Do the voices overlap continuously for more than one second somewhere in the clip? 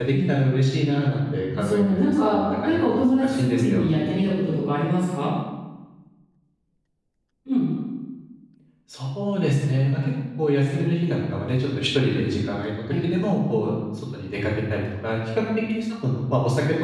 Yes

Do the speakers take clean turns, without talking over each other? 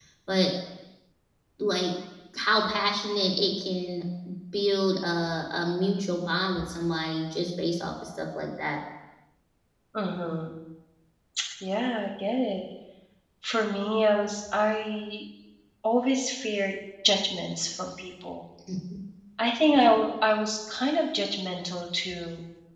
Yes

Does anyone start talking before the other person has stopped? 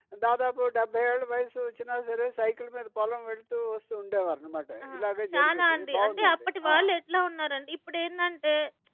Yes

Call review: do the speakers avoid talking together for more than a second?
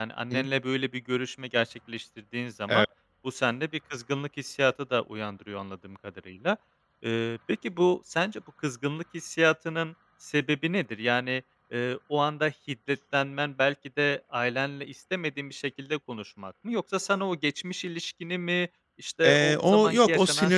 No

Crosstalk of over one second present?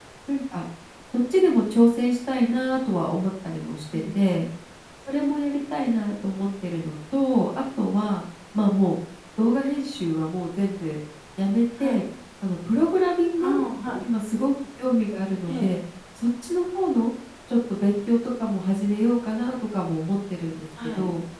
No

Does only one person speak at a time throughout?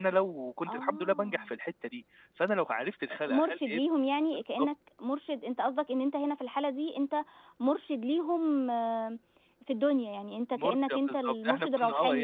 No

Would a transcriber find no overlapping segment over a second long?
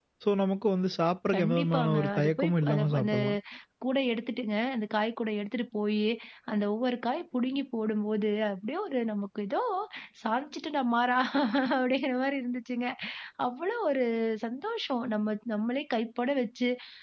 No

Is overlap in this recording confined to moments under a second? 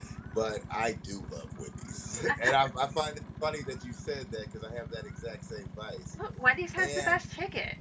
Yes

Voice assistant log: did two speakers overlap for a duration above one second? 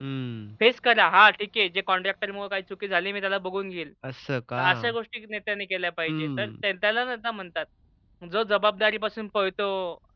No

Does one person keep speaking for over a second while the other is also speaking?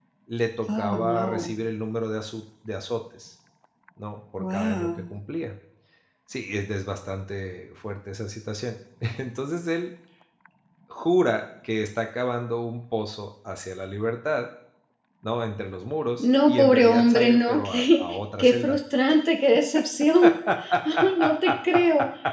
Yes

